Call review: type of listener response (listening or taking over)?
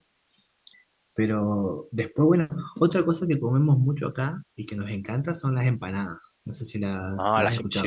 taking over